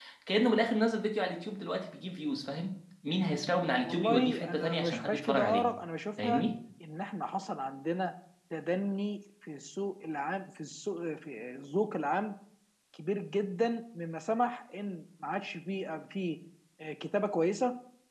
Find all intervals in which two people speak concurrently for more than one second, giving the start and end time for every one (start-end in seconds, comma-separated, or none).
3.8-5.7